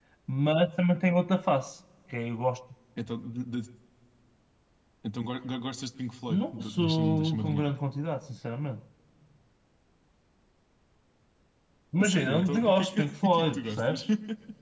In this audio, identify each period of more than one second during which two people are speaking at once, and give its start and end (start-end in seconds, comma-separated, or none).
6.3-7.7, 12.0-14.0